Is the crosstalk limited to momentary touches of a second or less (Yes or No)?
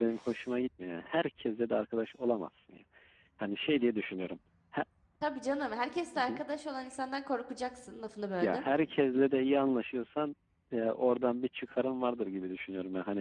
Yes